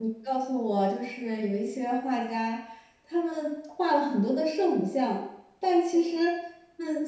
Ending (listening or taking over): listening